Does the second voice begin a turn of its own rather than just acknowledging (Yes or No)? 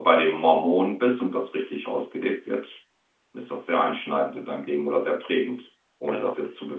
No